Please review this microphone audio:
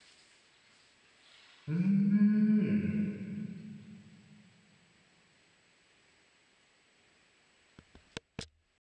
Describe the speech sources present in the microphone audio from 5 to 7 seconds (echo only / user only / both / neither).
neither